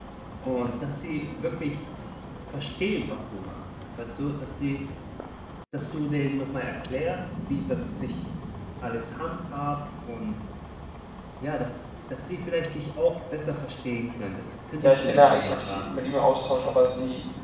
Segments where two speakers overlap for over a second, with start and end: 14.8-16.0

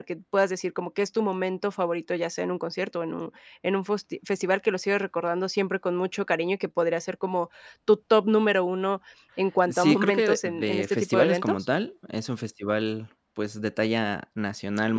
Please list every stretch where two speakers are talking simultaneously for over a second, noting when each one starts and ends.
9.7-11.6

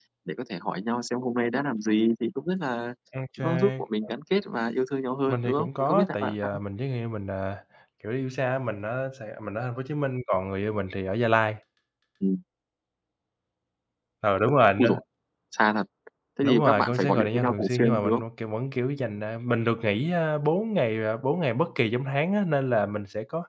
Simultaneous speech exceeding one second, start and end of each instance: 5.3-6.5, 16.4-18.2

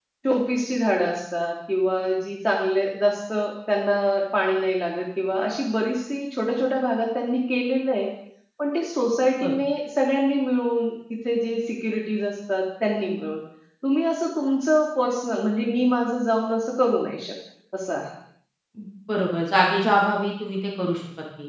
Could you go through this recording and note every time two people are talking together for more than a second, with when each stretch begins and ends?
none

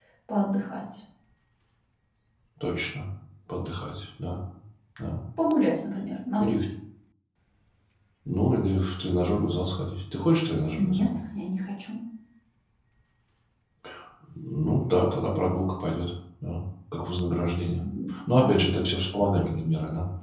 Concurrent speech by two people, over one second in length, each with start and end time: none

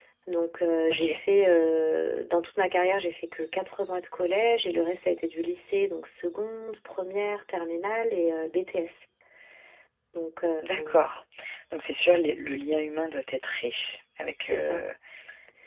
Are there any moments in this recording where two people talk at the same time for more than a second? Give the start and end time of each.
none

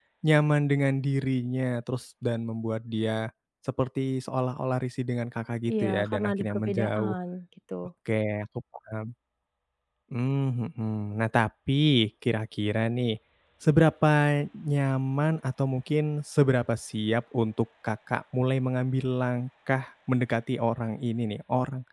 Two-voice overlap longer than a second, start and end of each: 5.7-7.1

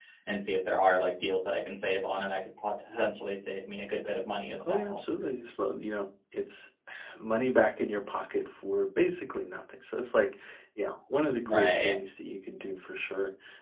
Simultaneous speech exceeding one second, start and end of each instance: none

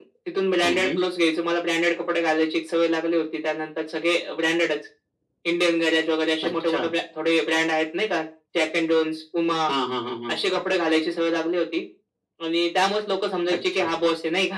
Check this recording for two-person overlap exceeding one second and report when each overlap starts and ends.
none

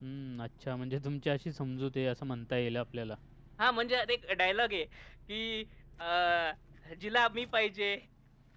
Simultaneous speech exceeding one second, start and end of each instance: none

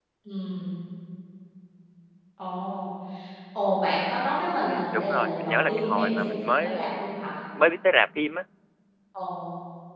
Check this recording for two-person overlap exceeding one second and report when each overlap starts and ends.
4.6-7.1

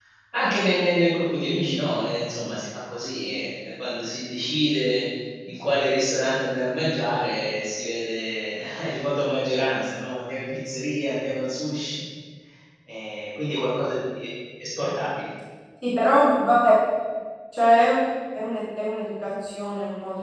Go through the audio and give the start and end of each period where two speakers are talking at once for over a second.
none

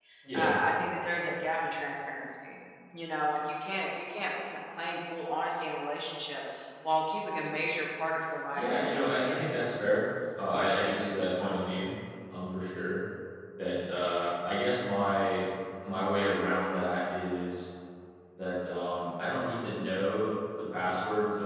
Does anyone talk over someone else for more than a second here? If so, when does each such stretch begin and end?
8.5-9.8

